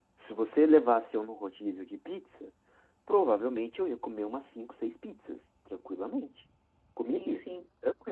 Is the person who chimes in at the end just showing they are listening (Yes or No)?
Yes